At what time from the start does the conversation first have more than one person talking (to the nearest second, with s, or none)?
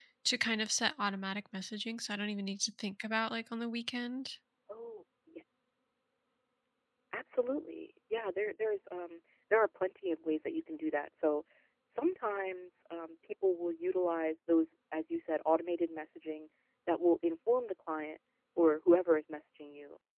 none